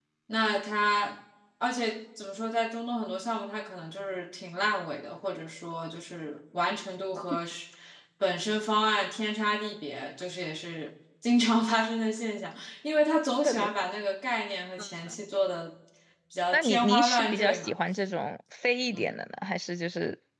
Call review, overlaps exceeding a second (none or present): present